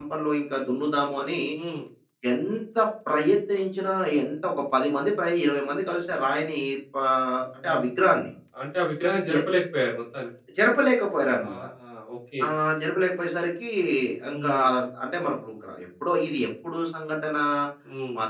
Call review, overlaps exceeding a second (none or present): none